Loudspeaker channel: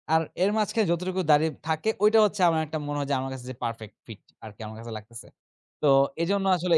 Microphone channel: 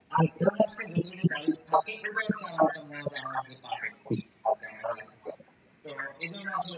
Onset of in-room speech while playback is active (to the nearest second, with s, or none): none